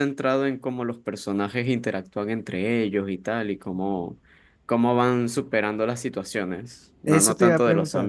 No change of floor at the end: No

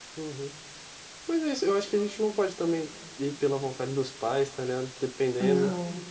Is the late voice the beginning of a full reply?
No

